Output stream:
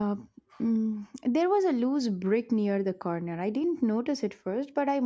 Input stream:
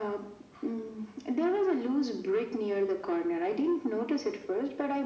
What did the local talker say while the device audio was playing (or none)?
none